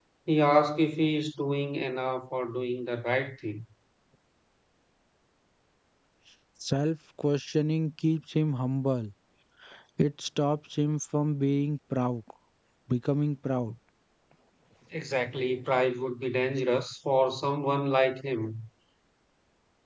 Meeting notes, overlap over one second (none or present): none